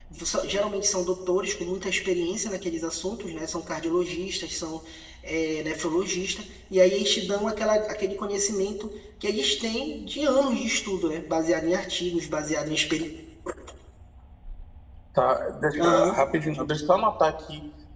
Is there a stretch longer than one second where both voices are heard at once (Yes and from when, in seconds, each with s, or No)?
No